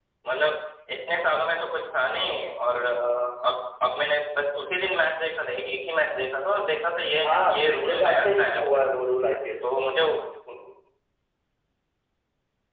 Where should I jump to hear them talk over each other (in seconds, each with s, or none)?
7.2 s